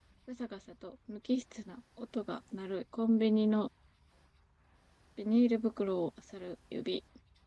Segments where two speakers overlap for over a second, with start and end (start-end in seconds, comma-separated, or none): none